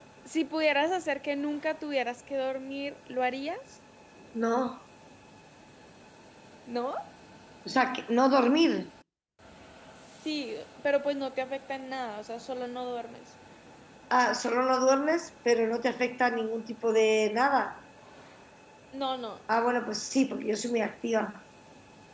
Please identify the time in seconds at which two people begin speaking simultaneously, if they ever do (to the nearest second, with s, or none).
none